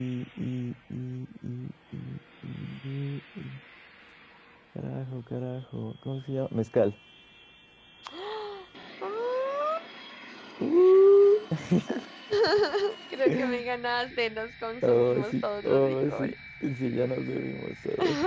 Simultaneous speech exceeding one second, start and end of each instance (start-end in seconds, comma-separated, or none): 14.8-16.3